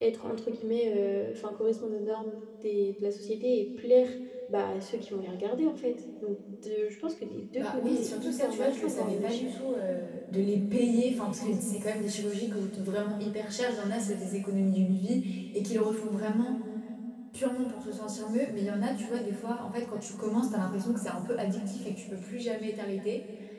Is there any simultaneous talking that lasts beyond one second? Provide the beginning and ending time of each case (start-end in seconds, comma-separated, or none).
7.6-9.5